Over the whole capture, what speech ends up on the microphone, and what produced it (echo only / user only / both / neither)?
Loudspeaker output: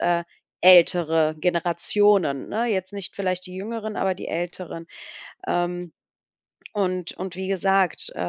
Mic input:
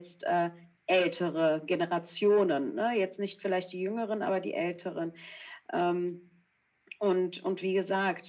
echo only